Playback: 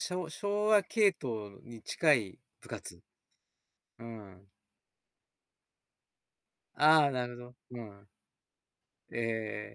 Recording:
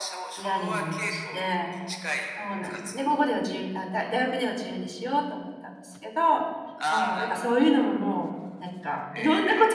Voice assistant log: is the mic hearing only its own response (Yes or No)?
No